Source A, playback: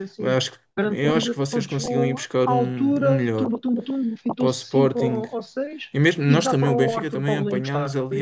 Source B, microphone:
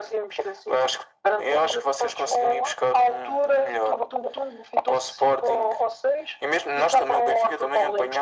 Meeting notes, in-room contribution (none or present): none